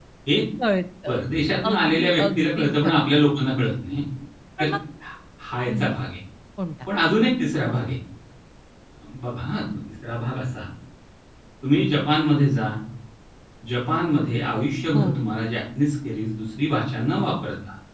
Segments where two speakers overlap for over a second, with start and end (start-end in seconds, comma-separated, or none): 1.7-3.2